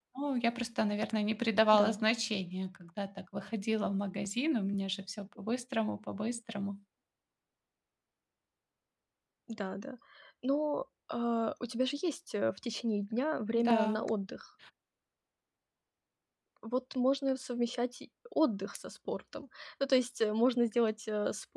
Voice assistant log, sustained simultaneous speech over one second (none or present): none